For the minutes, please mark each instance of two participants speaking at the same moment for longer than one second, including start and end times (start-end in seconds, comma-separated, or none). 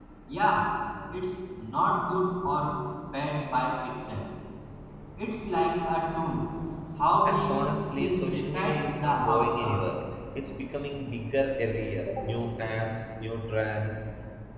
7.2-9.8